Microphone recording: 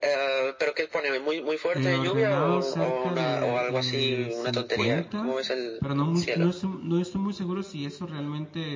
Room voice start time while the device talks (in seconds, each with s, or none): 1.7 s